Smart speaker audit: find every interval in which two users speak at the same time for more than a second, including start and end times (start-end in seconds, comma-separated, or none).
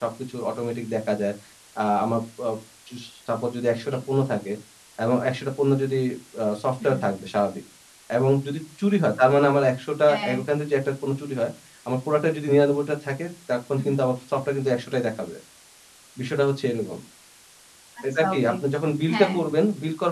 none